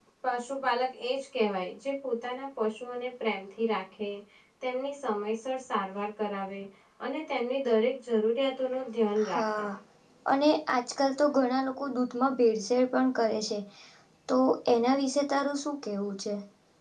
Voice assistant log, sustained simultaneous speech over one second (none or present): none